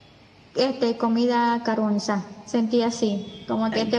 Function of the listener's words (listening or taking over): listening